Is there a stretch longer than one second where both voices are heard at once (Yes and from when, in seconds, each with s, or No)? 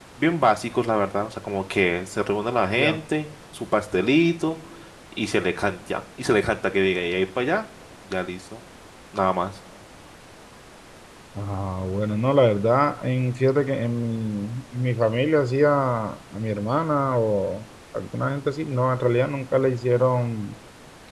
No